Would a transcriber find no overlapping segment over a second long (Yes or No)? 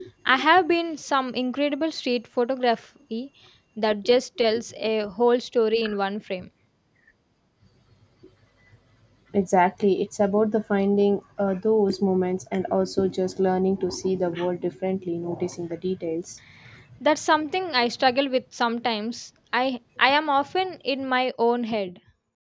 Yes